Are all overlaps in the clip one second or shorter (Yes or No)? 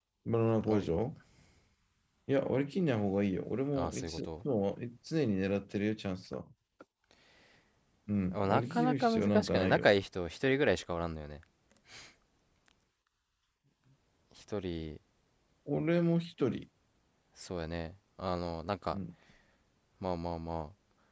No